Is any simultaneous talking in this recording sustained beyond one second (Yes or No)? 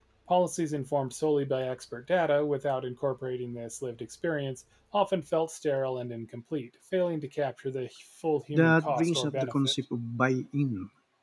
Yes